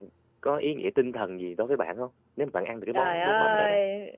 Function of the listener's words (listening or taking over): taking over